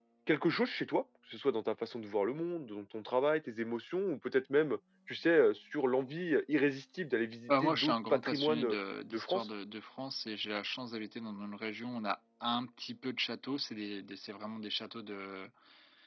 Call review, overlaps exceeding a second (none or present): present